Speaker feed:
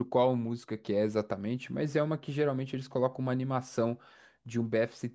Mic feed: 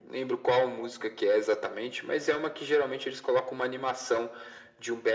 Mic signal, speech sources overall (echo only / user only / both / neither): echo only